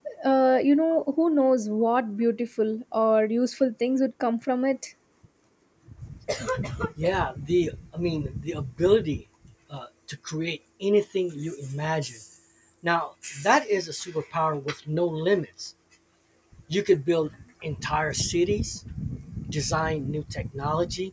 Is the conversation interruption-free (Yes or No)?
Yes